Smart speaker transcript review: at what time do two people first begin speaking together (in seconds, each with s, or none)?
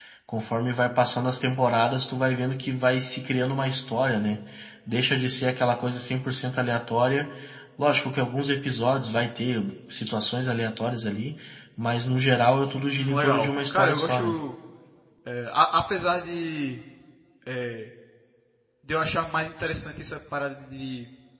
12.9 s